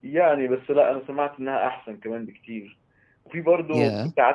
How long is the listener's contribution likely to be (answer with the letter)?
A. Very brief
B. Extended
A